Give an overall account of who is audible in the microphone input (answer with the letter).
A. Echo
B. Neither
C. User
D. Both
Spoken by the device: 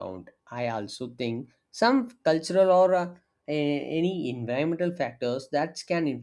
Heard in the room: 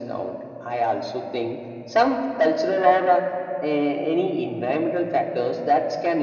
A